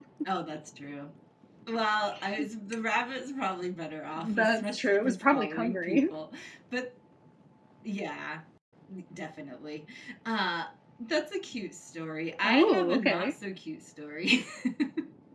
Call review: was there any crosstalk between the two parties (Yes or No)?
Yes